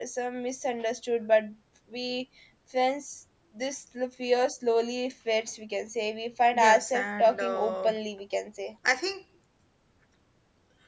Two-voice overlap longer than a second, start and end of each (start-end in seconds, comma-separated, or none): 6.5-7.9